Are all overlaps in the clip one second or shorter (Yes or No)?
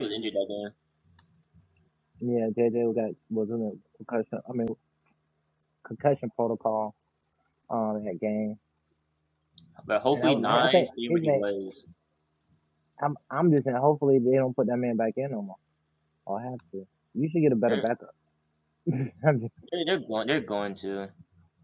No